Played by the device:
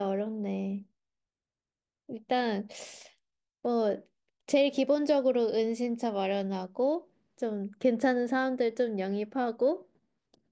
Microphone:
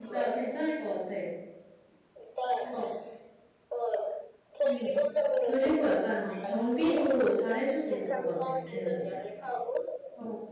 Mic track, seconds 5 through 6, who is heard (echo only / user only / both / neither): both